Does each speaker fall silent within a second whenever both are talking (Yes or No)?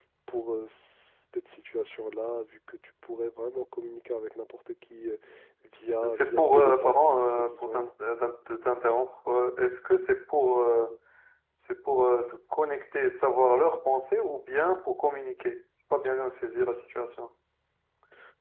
No